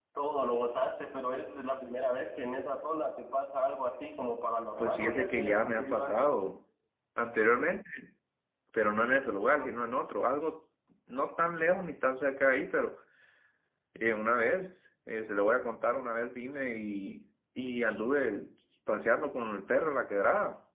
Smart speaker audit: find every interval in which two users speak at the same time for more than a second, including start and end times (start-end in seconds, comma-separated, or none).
4.8-6.2